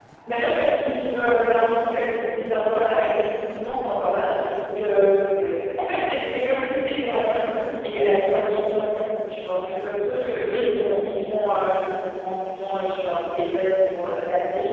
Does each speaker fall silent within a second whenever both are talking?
Yes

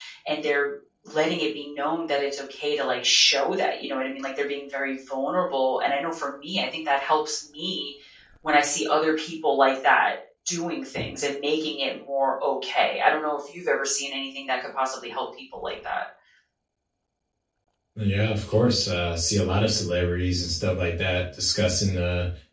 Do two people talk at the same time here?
No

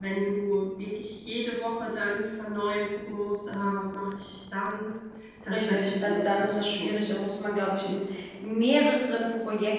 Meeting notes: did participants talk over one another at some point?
Yes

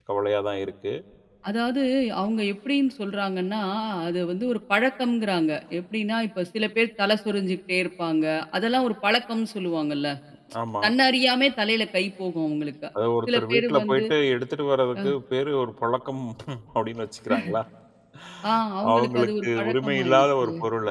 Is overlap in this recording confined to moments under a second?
No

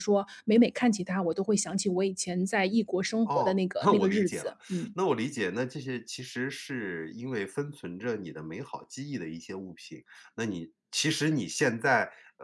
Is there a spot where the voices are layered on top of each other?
Yes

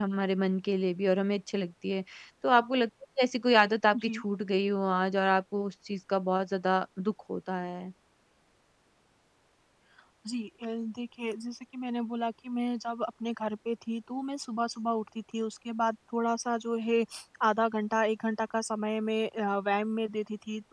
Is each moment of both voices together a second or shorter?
Yes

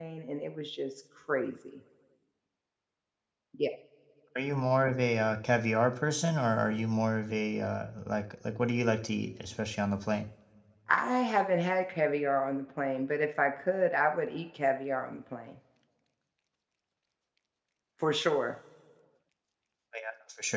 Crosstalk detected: No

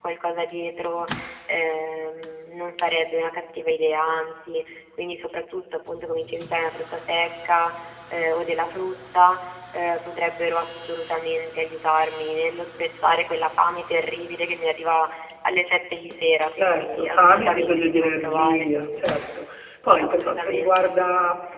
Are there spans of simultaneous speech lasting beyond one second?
Yes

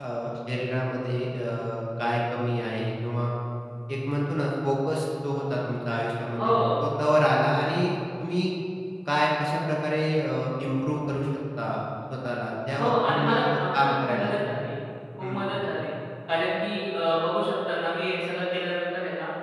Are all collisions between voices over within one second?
No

